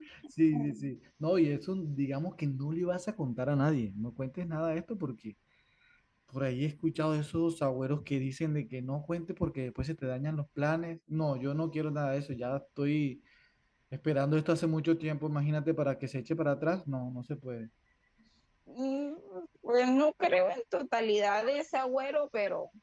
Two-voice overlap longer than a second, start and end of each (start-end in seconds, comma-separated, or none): none